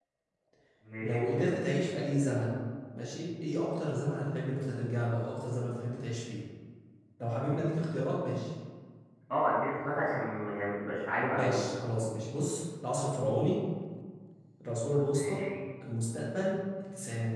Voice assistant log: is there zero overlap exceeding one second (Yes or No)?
Yes